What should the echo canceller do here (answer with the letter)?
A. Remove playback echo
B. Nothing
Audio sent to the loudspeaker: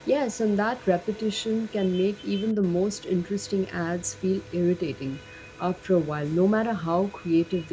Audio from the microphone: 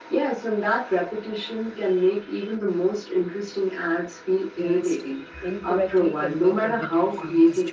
A